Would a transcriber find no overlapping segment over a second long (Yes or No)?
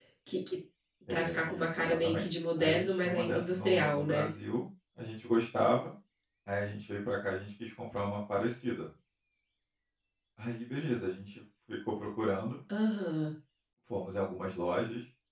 No